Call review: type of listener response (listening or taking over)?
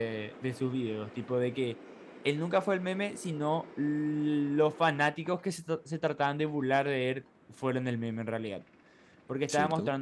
listening